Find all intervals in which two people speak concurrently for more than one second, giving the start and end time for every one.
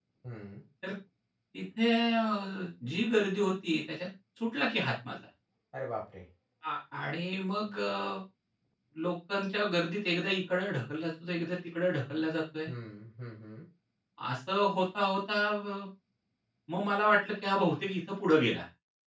none

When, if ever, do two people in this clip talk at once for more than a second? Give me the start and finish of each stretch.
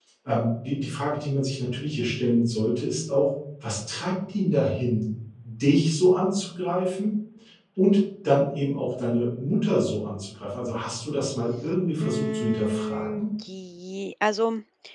12.0-13.3

